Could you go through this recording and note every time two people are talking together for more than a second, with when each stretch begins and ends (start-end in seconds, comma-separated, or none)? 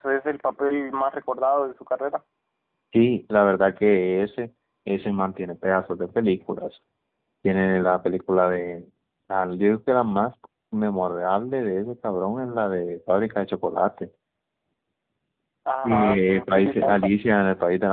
15.8-17.1